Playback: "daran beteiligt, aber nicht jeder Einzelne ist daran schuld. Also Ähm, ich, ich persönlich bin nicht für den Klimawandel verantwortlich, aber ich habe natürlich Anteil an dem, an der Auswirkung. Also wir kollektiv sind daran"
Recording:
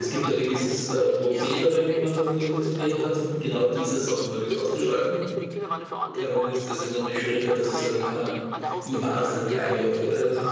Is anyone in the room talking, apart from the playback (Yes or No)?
Yes